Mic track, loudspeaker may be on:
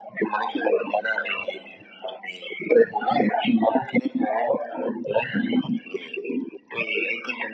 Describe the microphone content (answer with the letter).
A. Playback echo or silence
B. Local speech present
A